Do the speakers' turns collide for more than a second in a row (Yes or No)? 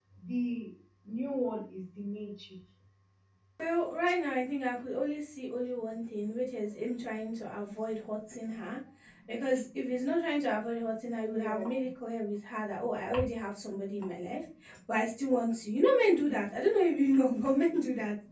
No